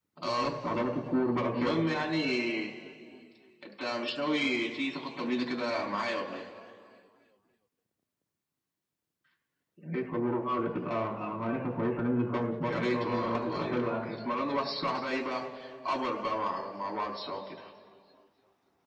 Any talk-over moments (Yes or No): Yes